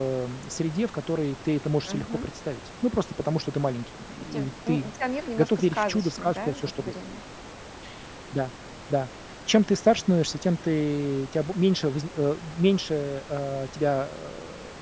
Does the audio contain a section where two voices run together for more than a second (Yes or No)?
Yes